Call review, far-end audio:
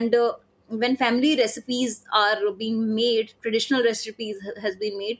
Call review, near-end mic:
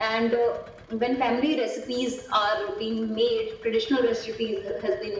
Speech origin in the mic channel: echo only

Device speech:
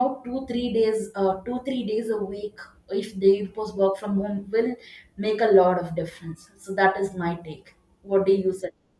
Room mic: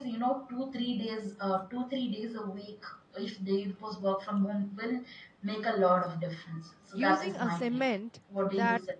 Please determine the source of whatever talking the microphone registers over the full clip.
both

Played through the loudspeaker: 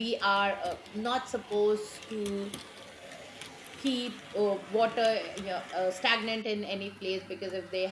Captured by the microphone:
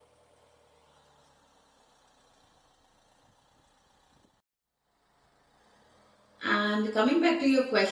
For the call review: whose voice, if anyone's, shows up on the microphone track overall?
user only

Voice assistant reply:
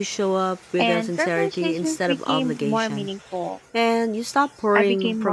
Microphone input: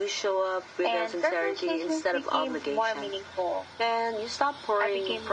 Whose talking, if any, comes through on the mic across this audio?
echo only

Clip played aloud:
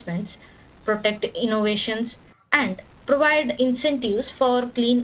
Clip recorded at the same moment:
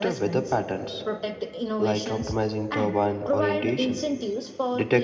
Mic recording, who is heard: both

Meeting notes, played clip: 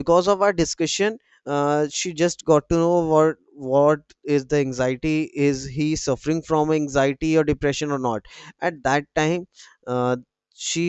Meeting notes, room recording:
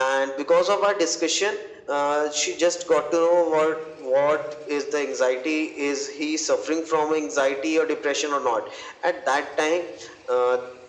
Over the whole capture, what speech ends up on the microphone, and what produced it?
echo only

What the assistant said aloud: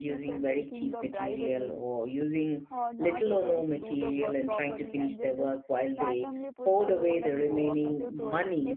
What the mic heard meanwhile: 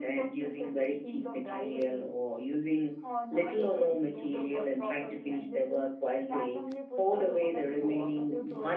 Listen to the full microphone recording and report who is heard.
echo only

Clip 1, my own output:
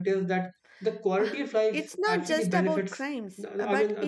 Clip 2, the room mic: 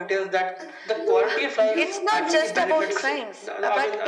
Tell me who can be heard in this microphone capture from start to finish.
both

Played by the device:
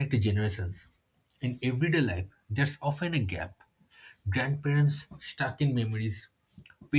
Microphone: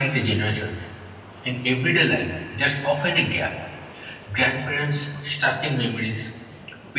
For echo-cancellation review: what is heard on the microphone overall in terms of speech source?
echo only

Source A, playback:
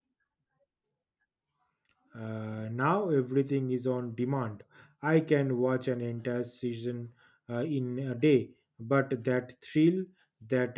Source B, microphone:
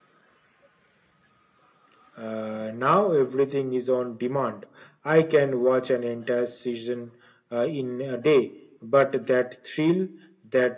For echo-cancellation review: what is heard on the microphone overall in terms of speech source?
echo only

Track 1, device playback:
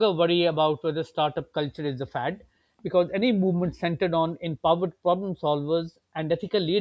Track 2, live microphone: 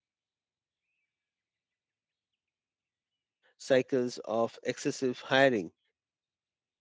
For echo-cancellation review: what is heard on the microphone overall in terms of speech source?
user only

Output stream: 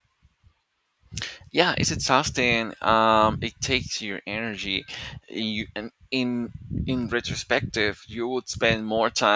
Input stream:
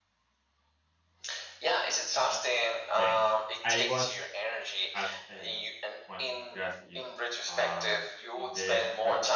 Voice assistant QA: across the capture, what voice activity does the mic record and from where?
both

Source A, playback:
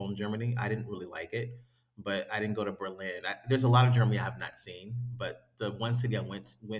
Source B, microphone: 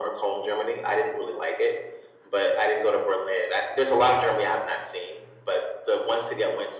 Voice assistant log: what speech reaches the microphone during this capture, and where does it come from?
echo only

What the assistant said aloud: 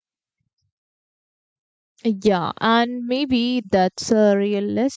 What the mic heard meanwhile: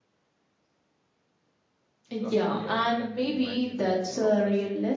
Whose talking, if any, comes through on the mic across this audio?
both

